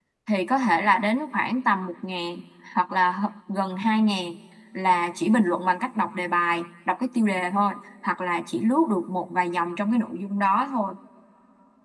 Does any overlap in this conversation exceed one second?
No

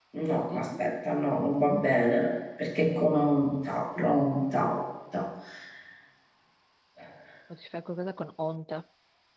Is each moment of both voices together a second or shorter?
Yes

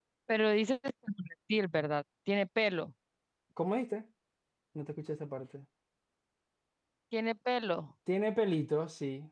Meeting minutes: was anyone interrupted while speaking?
No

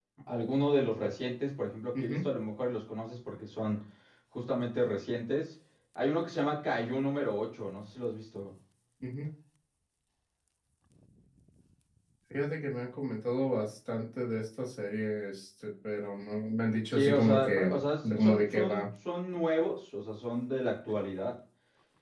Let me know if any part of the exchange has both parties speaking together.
Yes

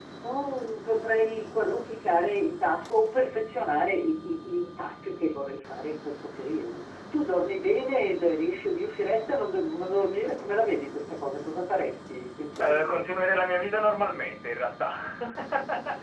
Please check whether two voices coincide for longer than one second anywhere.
No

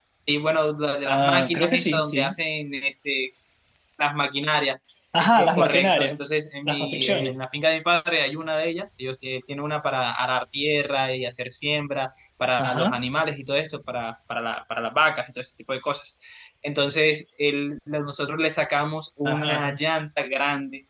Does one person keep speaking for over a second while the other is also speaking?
Yes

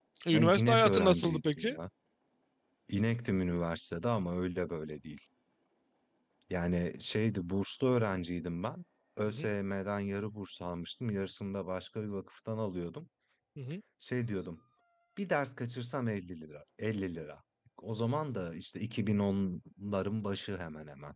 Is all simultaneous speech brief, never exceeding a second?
No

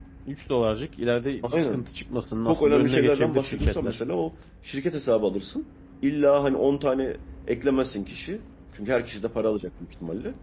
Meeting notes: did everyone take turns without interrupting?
No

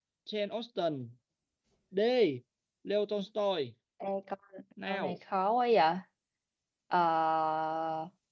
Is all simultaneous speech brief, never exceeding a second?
Yes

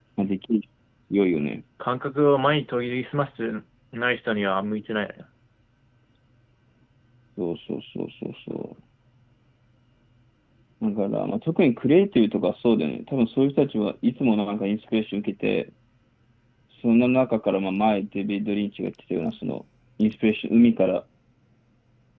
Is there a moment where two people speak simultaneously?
No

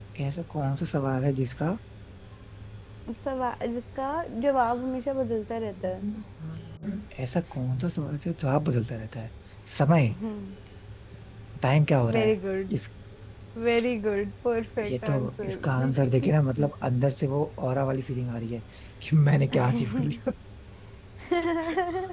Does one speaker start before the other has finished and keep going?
Yes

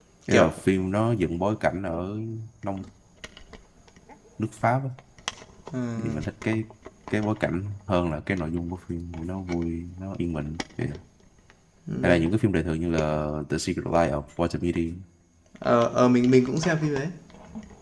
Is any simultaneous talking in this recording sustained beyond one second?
No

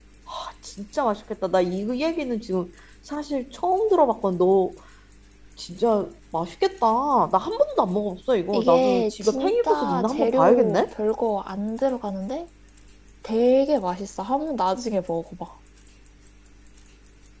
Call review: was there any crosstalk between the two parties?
Yes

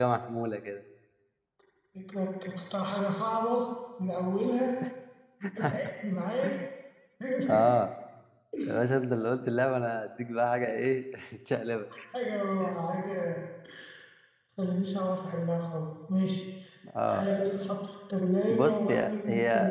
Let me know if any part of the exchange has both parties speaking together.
Yes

